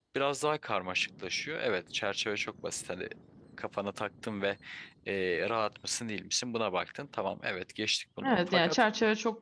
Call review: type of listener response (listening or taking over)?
taking over